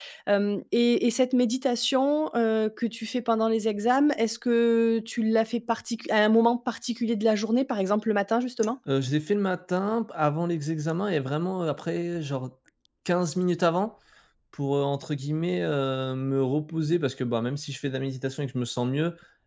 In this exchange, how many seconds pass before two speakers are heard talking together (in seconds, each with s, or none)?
none